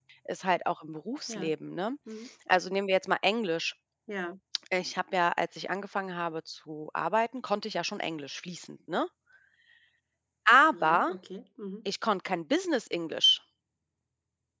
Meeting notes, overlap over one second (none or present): none